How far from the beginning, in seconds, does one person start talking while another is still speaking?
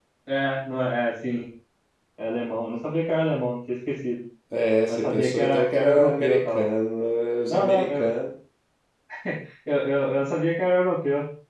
4.9 s

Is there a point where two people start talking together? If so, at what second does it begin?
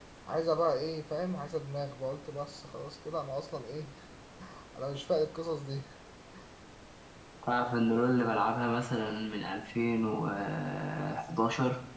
none

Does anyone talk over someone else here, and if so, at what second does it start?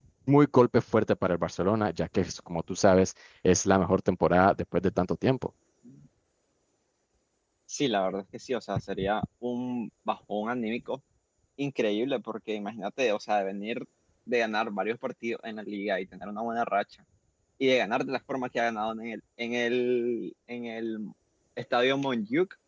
none

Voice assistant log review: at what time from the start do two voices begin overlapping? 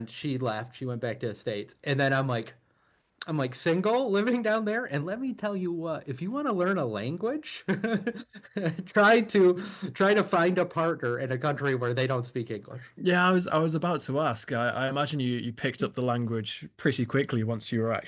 none

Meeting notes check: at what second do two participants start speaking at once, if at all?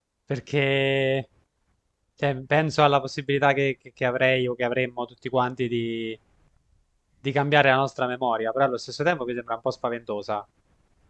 none

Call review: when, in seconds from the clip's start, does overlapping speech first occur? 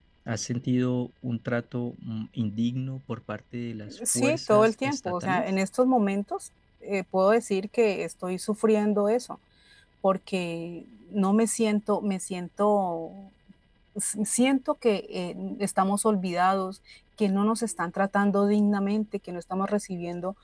3.9 s

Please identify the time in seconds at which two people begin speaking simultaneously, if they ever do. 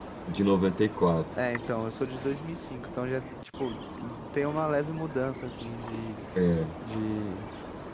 none

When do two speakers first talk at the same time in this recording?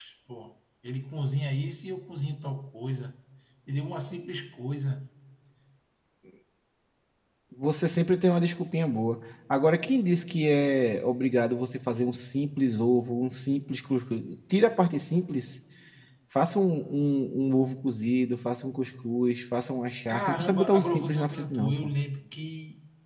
20.1 s

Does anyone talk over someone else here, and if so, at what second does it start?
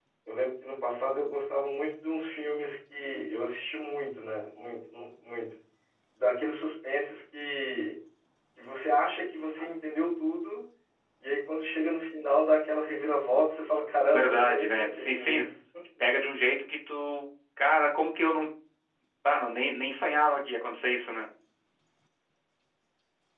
14.1 s

